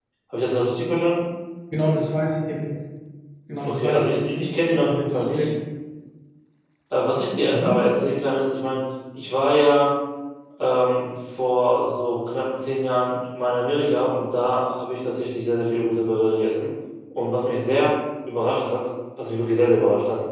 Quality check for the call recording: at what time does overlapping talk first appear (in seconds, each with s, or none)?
3.7 s